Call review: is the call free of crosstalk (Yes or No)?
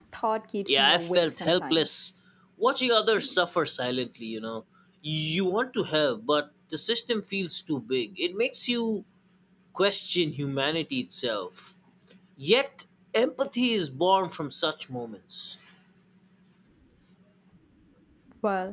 No